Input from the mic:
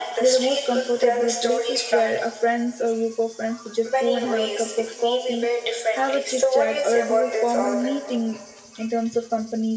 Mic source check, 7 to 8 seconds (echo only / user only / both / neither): both